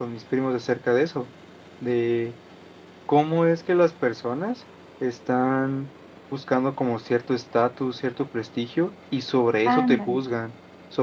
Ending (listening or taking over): listening